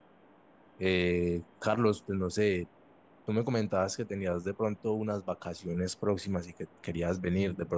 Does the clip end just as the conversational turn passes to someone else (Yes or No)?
No